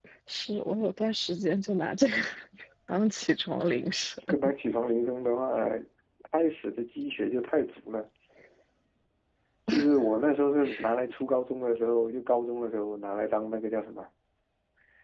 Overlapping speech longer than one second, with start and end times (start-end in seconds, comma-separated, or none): none